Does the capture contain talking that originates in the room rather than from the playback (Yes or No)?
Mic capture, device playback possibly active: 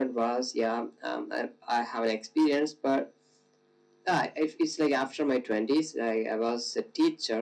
No